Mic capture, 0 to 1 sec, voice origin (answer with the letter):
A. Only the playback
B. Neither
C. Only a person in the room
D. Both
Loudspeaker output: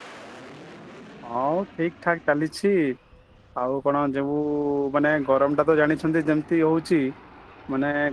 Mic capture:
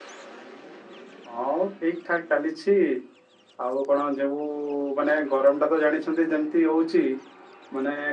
B